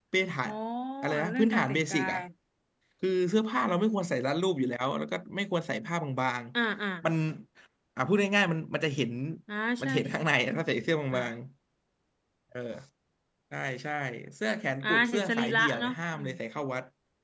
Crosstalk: present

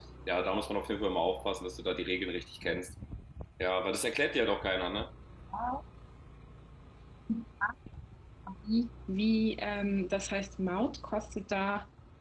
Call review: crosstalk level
none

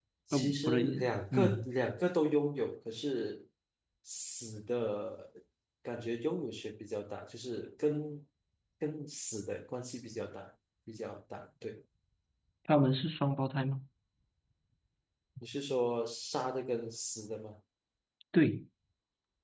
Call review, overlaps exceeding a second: present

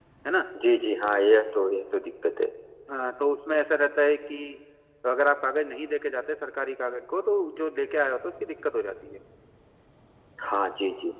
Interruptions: none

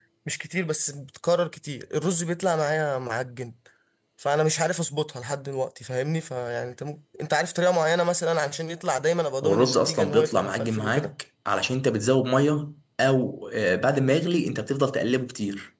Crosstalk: present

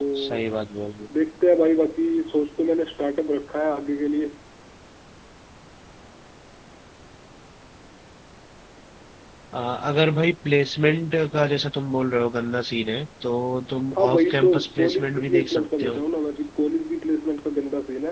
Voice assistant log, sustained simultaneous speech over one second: present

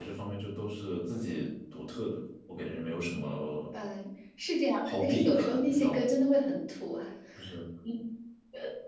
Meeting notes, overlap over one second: present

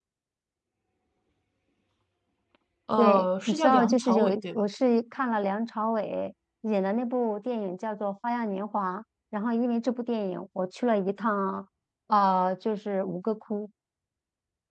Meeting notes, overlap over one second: present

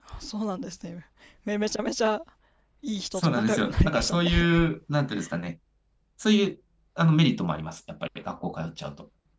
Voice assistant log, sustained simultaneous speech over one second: present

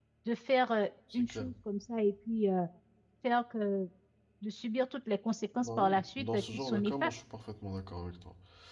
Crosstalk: present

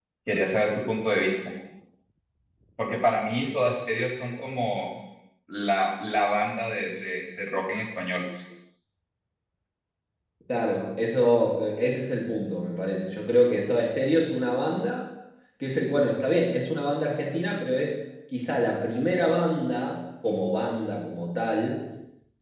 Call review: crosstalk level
none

